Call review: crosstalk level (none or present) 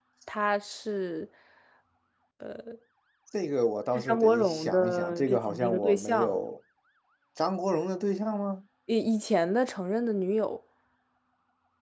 present